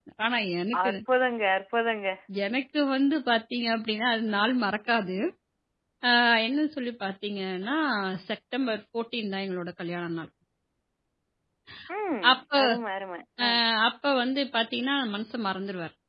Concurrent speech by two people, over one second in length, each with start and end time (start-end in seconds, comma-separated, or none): none